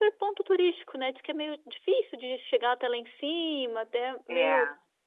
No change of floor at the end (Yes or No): Yes